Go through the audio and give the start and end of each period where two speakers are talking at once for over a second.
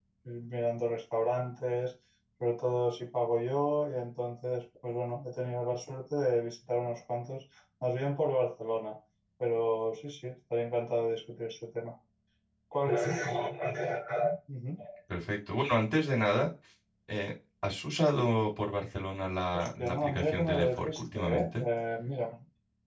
19.6-21.6

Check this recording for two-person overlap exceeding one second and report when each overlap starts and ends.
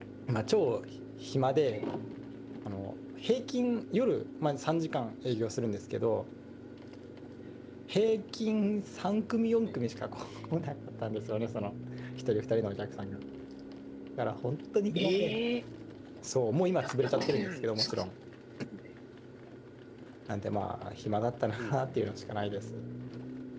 16.8-18.0

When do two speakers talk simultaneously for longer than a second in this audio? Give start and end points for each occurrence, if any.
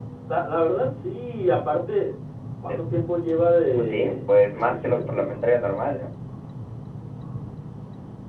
3.8-5.4

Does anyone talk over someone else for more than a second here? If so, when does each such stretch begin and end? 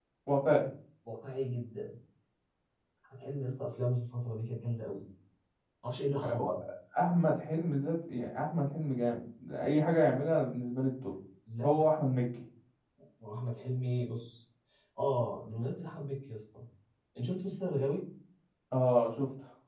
none

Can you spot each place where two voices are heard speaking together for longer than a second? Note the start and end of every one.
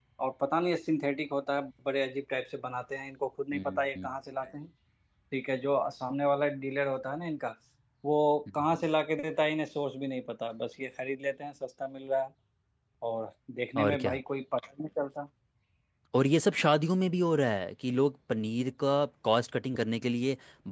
none

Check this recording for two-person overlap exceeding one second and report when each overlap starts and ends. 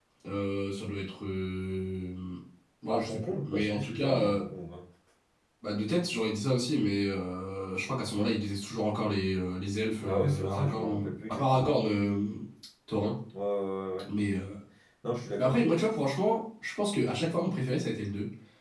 2.9-4.4, 10.1-11.8

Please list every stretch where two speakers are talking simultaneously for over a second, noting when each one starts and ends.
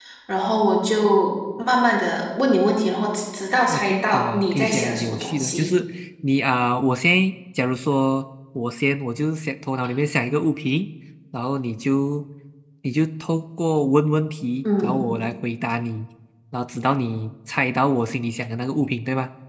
3.7-5.7

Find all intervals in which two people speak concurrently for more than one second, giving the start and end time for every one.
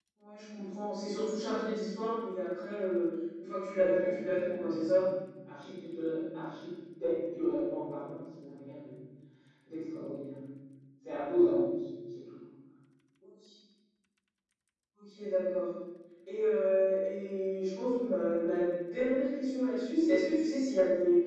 3.8-5.0

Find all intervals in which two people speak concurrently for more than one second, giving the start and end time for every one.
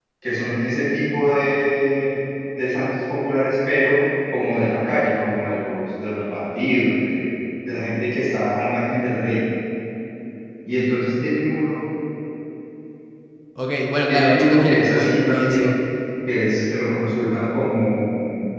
14.1-15.7

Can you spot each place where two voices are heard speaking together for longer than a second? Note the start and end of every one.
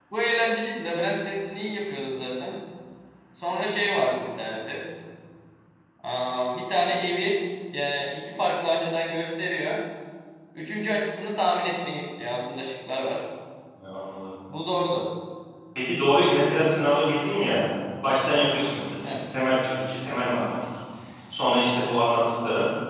none

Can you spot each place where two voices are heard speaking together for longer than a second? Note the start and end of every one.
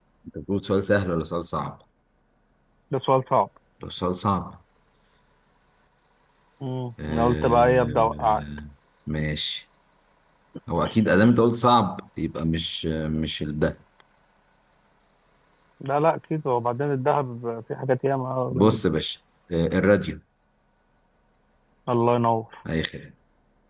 7.1-8.4

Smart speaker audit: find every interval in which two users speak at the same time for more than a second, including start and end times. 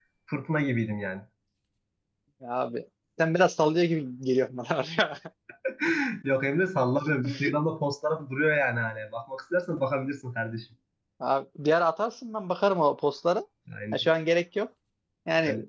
none

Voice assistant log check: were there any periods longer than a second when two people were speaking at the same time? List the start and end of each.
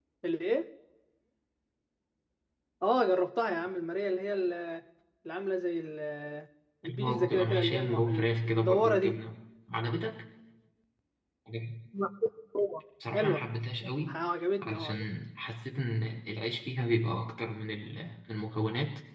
6.9-9.2

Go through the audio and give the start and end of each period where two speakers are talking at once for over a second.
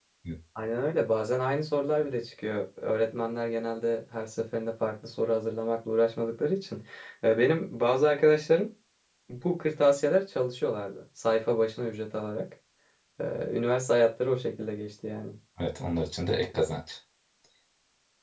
none

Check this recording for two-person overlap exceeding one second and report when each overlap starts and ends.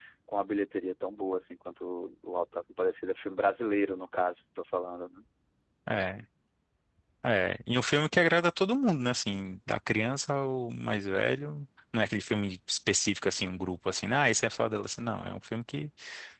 none

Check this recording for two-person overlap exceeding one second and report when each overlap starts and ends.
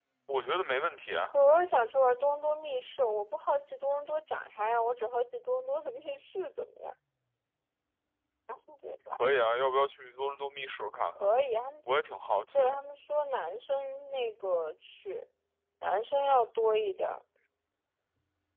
none

